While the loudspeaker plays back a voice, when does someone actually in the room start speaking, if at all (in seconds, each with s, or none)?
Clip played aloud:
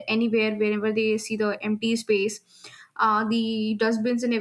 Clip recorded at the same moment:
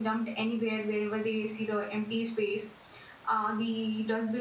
none